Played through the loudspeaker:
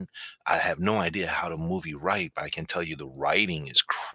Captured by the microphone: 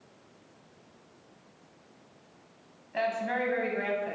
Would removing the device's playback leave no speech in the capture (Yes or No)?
No